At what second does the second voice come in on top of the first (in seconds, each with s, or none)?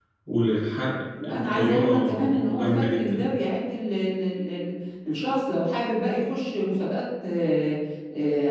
1.2 s